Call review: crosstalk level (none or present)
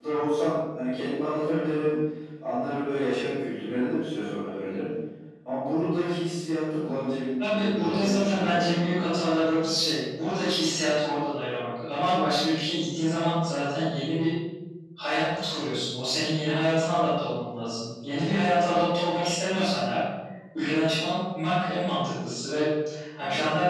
present